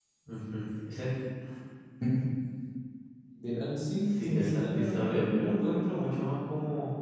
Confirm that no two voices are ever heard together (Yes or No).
No